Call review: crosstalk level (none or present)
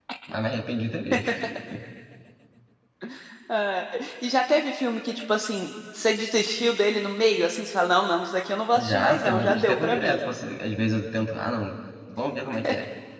present